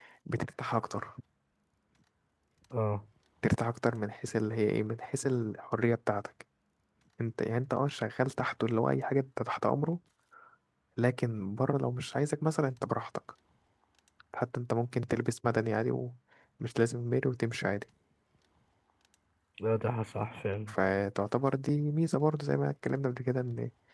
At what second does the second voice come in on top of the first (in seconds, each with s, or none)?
none